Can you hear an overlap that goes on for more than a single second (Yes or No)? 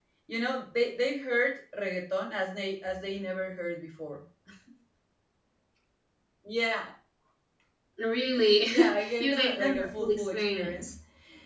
Yes